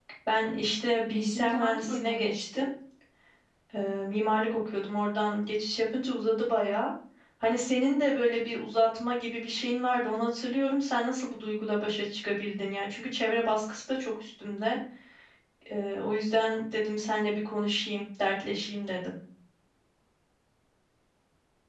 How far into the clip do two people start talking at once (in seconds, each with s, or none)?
1.1 s